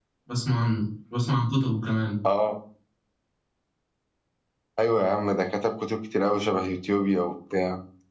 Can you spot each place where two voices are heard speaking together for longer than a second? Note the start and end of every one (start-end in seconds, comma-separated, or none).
none